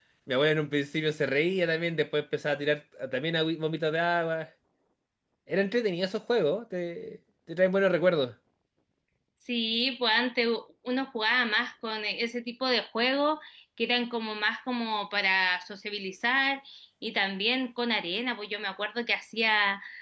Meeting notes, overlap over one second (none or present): none